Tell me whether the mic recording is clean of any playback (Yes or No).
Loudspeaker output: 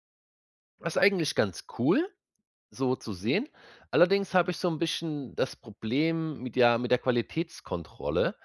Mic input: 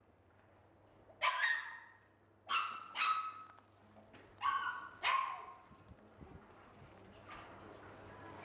Yes